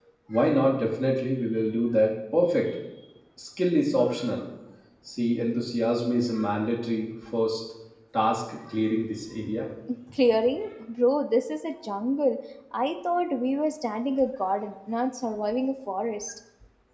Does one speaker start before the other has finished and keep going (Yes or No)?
No